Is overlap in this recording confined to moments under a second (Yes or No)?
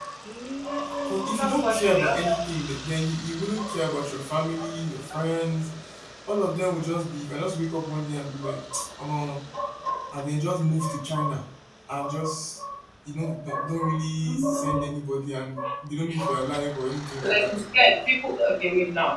No